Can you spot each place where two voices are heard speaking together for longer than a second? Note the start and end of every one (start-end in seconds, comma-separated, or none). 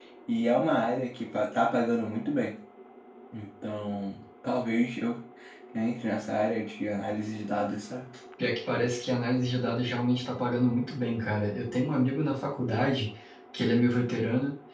none